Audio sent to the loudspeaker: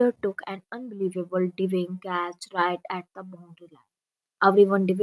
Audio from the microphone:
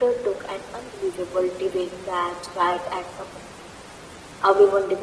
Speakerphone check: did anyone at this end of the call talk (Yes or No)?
No